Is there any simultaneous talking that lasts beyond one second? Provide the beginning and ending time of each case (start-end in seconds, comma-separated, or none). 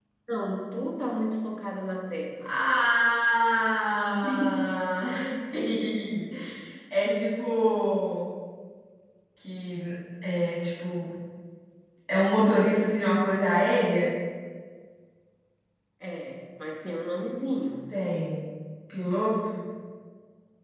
none